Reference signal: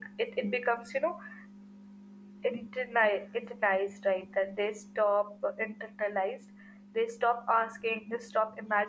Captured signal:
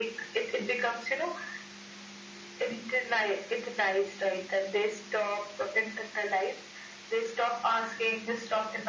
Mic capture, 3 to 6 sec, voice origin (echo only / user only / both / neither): echo only